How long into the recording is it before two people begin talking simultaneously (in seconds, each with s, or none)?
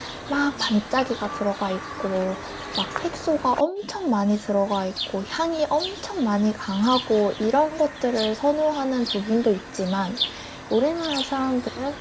none